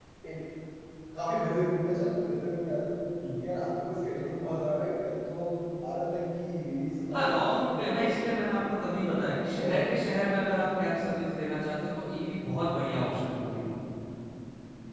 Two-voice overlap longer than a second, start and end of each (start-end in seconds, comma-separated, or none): 7.1-8.5